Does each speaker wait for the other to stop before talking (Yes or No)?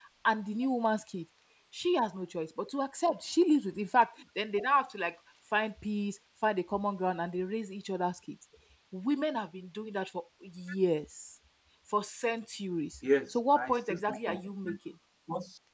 No